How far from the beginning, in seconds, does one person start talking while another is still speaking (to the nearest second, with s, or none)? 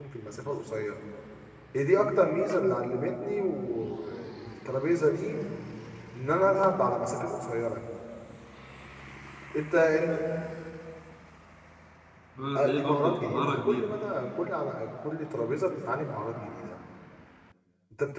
13 s